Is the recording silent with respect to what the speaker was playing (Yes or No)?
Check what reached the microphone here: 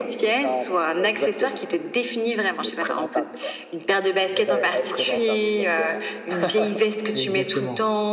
No